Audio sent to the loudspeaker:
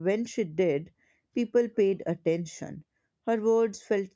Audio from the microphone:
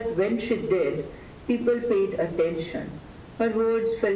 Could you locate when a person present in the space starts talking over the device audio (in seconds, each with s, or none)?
none